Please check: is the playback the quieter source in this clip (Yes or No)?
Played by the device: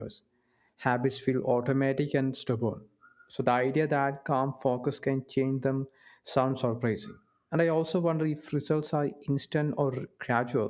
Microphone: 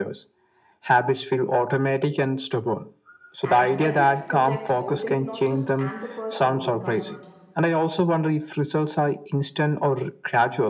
No